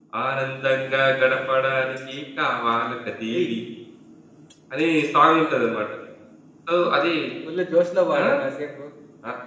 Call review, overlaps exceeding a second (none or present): none